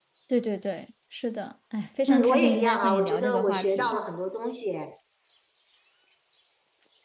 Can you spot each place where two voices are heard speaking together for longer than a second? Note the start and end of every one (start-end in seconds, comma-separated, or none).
2.1-4.0